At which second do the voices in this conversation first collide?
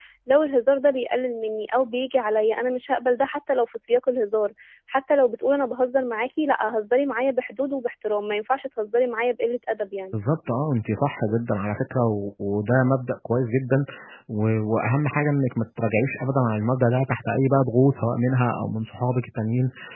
none

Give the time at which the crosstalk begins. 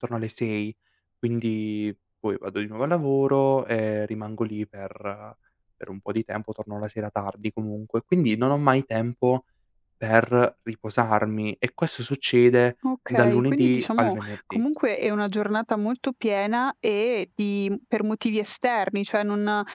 13.1 s

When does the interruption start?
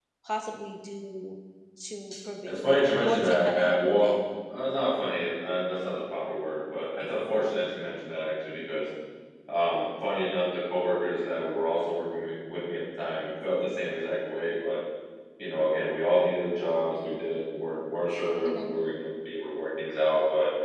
2.5 s

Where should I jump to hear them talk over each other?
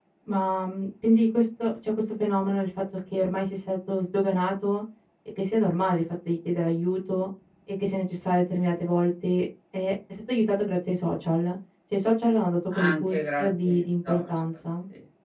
12.7 s

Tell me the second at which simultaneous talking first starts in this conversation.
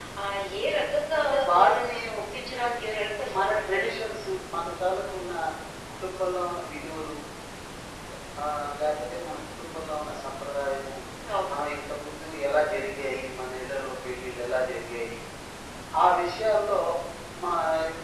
1.2 s

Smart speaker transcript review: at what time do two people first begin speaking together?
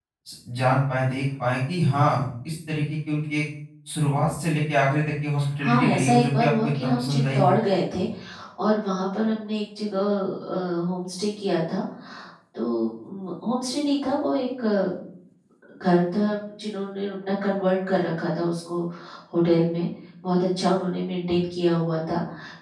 5.6 s

